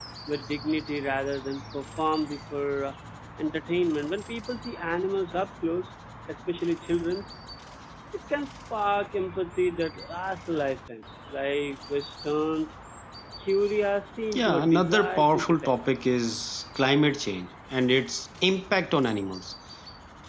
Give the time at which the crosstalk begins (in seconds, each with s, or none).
14.3 s